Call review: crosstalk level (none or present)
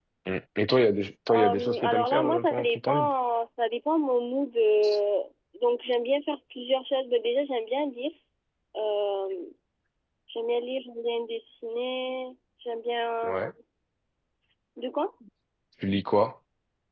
present